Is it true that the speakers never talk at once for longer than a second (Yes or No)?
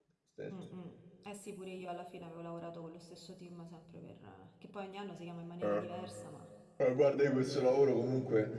Yes